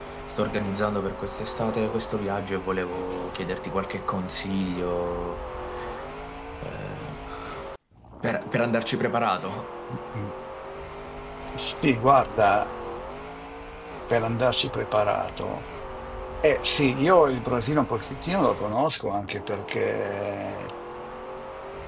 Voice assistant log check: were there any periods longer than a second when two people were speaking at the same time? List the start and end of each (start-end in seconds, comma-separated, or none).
none